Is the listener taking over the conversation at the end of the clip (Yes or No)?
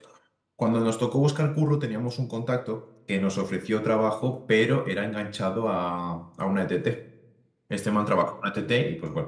No